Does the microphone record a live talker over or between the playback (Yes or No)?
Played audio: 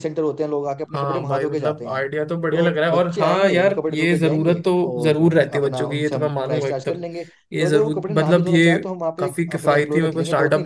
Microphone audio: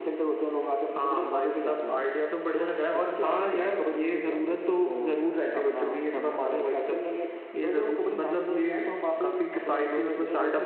No